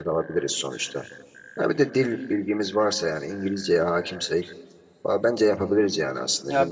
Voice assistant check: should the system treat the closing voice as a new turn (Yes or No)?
Yes